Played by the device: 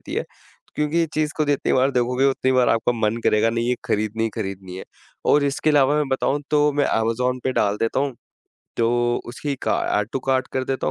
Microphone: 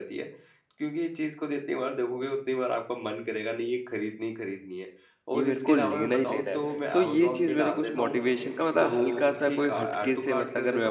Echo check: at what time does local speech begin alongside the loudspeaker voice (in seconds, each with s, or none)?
5.3 s